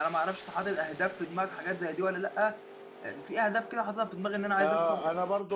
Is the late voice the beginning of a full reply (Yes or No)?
Yes